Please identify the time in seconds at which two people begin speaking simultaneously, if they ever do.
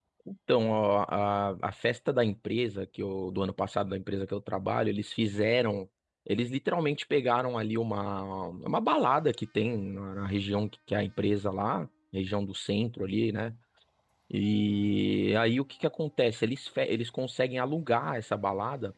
none

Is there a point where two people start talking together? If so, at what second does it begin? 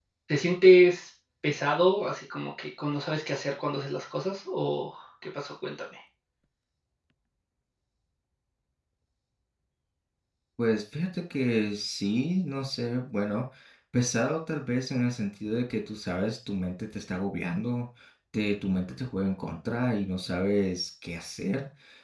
none

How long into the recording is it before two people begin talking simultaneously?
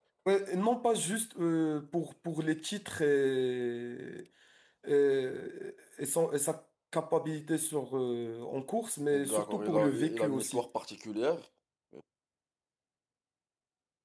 9.1 s

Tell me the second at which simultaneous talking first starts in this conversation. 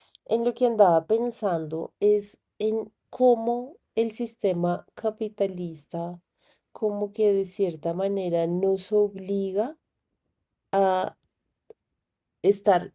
none

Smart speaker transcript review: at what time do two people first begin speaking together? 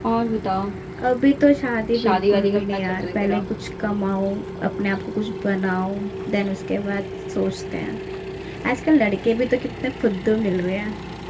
1.9 s

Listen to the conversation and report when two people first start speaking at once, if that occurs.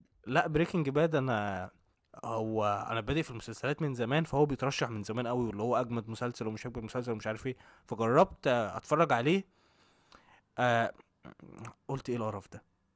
none

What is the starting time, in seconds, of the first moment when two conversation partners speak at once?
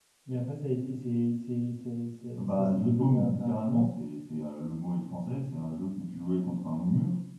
2.3 s

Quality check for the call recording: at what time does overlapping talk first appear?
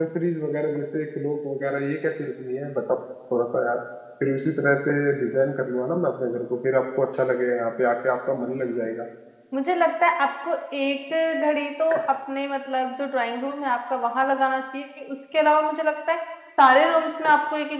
none

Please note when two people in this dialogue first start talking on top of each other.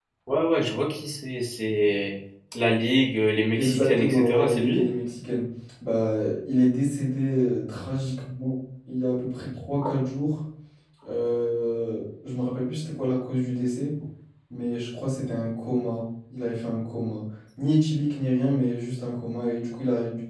3.6 s

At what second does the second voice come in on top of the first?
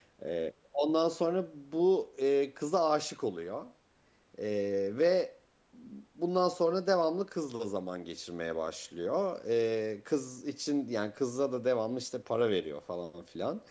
none

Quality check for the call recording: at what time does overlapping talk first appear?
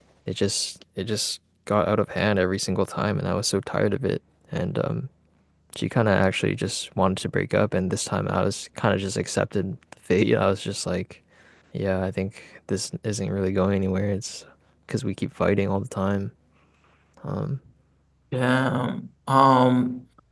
none

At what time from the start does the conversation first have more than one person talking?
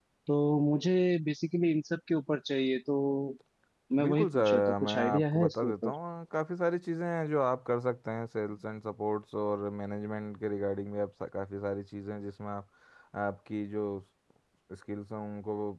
4.0 s

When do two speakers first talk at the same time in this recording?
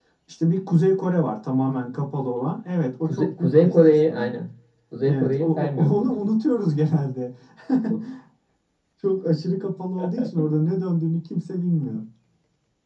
3.0 s

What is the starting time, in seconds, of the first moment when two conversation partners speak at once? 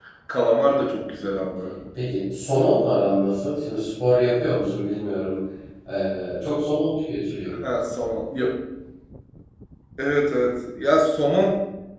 none

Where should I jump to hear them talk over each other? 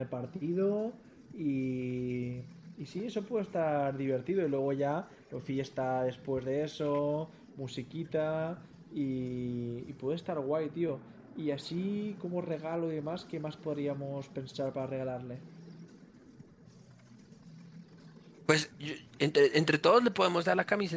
none

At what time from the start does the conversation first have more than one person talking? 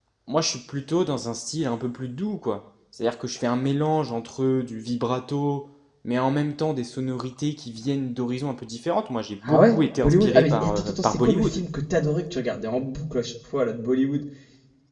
9.4 s

